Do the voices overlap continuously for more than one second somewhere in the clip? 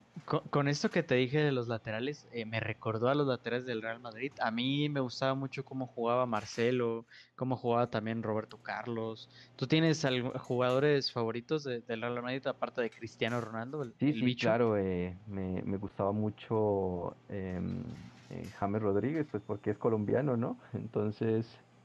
No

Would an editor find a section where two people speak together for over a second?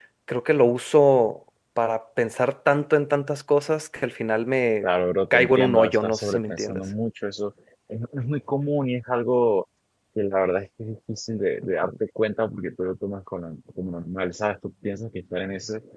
Yes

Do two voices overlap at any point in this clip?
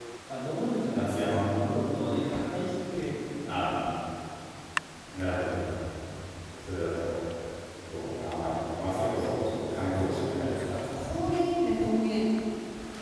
Yes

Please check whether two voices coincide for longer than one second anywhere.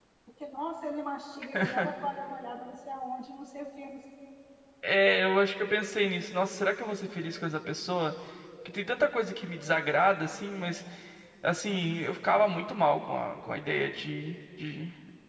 No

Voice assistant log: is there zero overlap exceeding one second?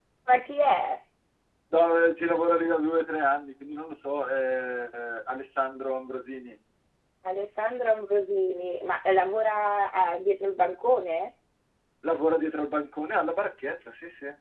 Yes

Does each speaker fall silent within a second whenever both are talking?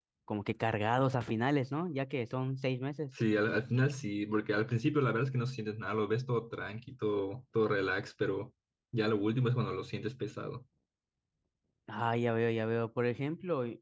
Yes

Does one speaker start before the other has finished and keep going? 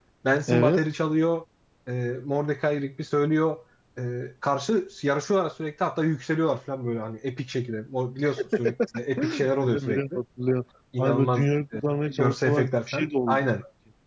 Yes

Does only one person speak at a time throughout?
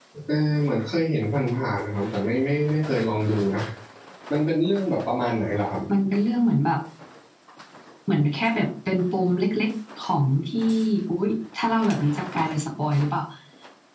Yes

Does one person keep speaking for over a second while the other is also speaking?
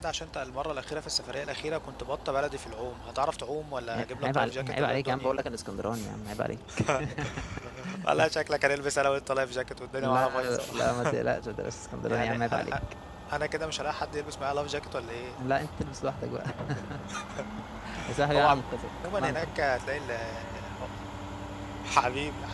Yes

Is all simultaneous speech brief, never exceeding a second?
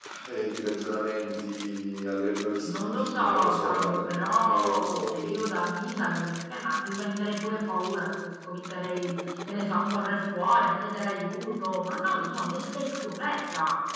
No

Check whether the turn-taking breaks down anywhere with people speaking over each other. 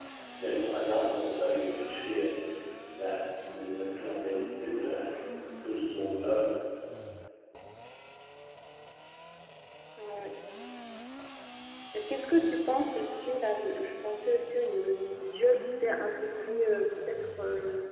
No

